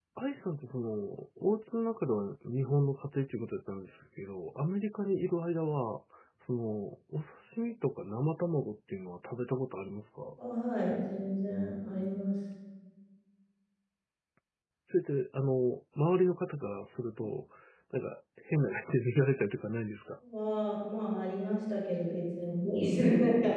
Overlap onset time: none

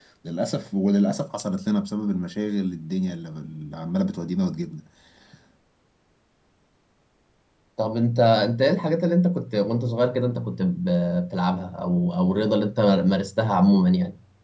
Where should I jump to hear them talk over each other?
none

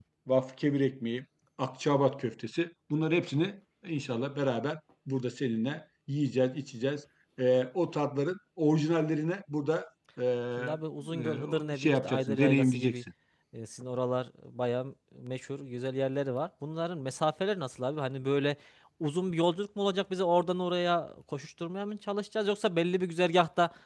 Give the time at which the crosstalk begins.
10.6 s

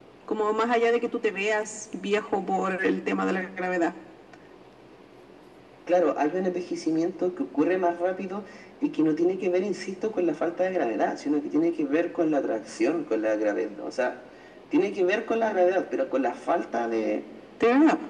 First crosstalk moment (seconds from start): none

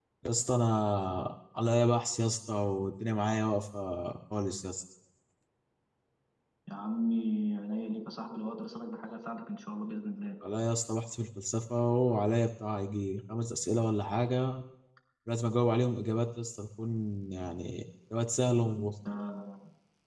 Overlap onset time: none

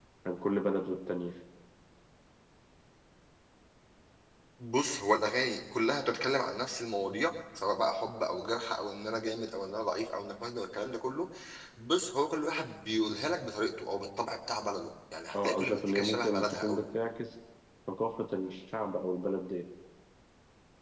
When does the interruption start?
15.3 s

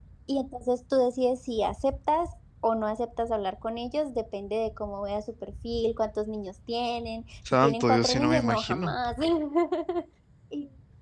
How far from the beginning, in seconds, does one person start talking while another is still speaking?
7.5 s

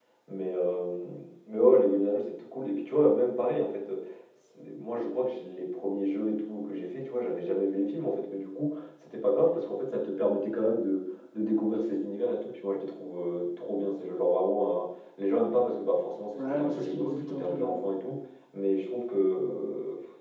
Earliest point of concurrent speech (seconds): 16.4 s

